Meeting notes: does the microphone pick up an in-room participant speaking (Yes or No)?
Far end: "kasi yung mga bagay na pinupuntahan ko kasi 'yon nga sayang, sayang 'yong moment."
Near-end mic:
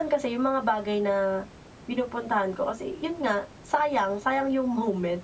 No